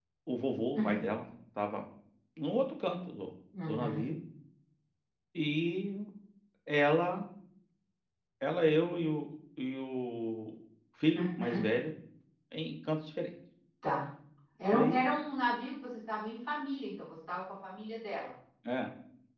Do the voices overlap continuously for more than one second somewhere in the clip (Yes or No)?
No